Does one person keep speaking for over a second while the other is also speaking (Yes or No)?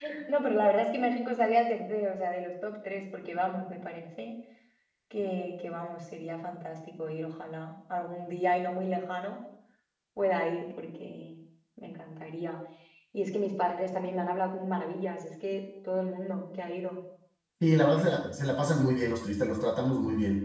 No